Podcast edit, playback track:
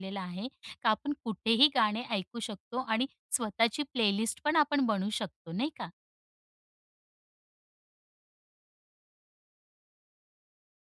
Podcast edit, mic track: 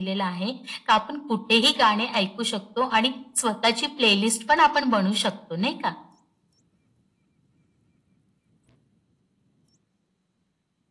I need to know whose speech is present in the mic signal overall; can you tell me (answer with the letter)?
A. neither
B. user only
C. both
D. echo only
D